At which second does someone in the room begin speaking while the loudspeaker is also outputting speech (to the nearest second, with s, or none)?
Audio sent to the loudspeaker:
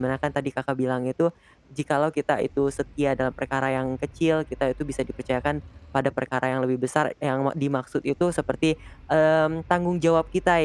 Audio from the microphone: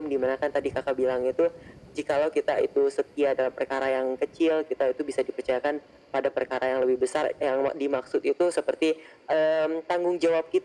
none